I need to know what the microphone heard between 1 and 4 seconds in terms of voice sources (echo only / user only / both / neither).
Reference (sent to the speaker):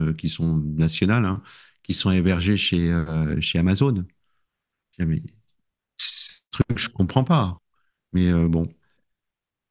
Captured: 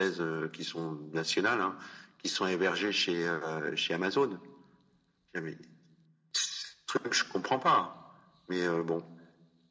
echo only